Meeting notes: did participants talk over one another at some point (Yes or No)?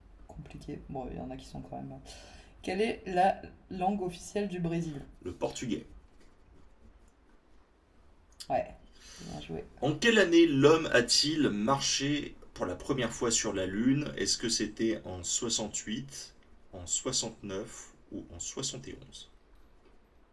No